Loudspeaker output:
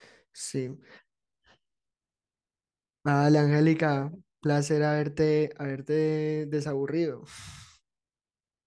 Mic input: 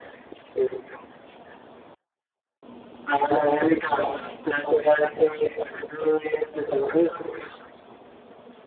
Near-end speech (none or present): none